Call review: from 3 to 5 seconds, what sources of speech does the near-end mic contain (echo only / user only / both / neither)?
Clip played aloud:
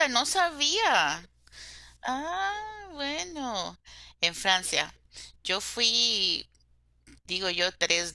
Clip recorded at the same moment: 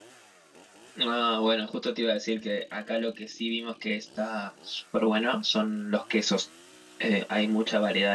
user only